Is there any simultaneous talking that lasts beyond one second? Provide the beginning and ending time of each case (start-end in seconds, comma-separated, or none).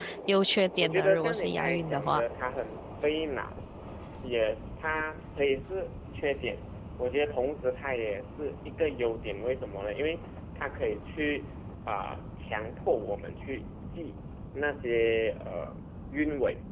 0.8-2.2